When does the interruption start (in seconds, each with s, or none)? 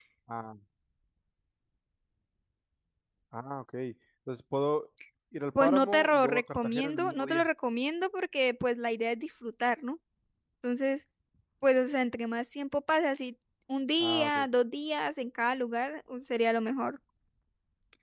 5.6 s